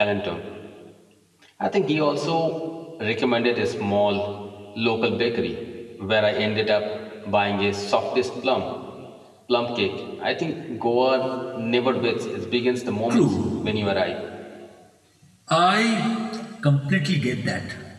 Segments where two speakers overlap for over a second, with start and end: none

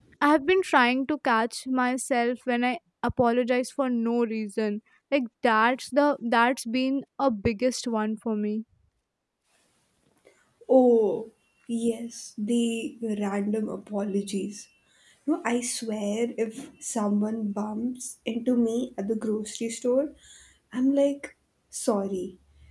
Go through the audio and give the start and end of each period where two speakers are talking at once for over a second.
none

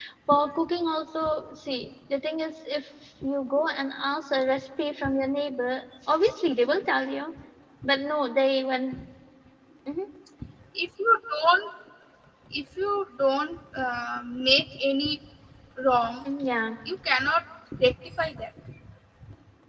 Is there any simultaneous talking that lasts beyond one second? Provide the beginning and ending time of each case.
none

